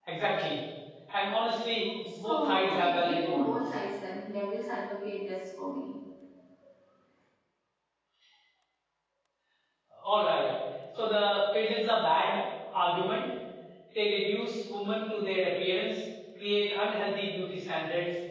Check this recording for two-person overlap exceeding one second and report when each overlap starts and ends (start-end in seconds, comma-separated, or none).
2.3-3.5